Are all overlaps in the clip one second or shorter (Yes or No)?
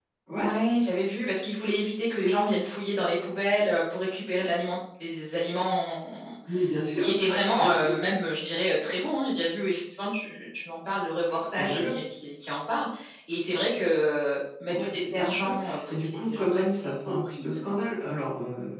No